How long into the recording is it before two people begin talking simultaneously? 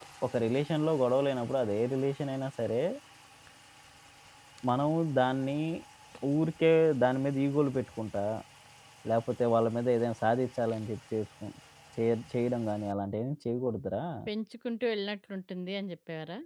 none

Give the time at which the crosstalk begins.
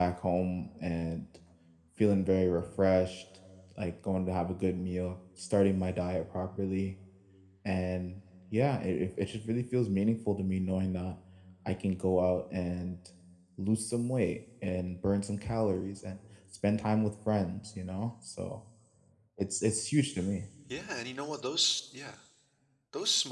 none

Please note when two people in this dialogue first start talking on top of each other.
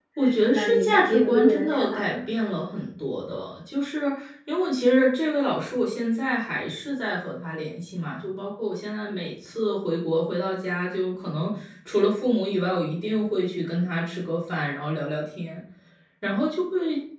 0.5 s

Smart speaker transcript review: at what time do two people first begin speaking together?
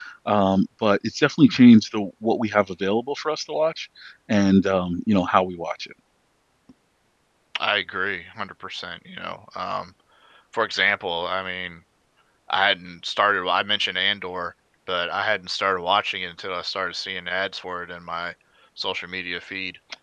none

